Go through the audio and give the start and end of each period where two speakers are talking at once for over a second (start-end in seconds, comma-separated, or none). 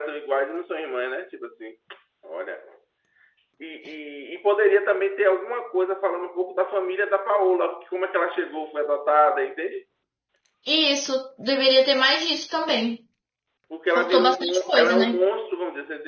13.9-15.2